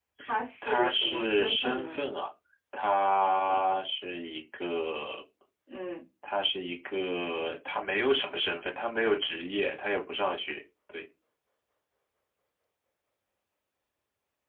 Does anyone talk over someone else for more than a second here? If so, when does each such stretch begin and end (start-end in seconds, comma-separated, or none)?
0.6-2.0